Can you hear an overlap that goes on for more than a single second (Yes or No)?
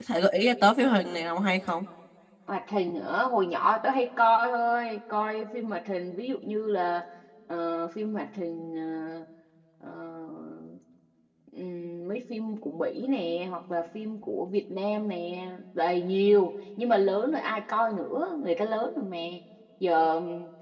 No